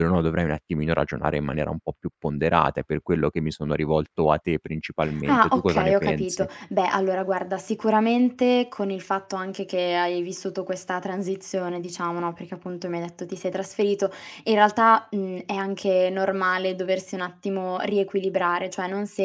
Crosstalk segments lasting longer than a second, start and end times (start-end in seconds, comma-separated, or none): 5.3-6.5